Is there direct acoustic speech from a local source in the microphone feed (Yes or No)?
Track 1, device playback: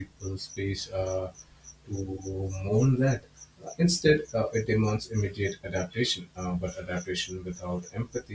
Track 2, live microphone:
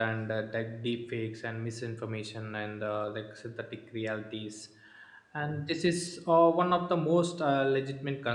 Yes